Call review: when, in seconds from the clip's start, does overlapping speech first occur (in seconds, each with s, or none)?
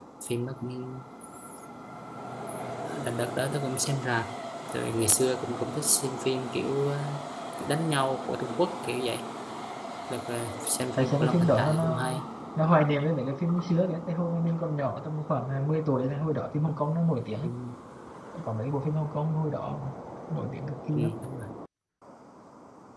11.0 s